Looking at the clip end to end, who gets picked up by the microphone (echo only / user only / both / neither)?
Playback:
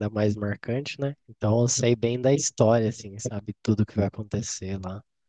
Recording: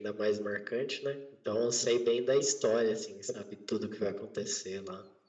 echo only